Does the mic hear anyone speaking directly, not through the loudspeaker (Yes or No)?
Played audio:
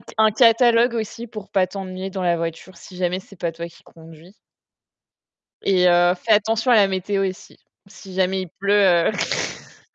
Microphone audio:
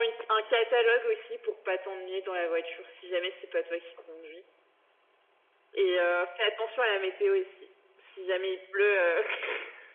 No